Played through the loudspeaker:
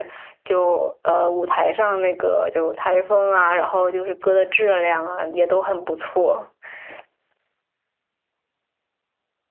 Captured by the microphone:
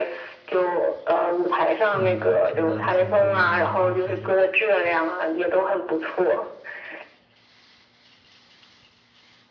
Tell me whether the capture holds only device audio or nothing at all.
No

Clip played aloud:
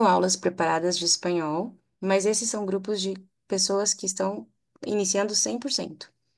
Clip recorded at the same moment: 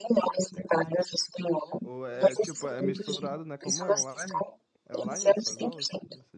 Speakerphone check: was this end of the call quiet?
No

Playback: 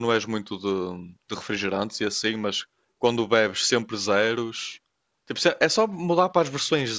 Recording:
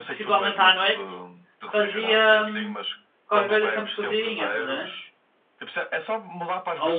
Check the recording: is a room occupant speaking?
Yes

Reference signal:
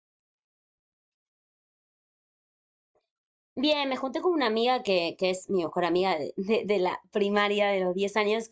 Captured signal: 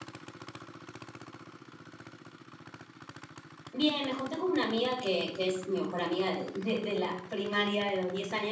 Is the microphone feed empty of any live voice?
Yes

